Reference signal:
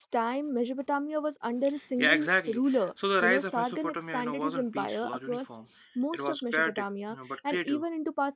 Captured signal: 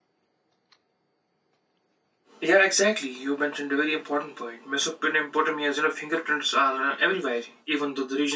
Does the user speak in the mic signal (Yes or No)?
Yes